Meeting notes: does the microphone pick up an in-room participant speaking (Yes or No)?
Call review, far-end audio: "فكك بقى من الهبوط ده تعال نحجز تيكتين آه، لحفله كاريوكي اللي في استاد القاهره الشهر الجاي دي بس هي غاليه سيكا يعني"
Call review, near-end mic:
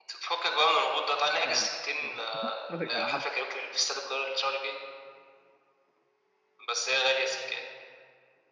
Yes